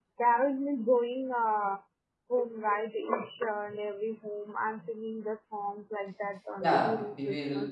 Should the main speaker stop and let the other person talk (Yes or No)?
Yes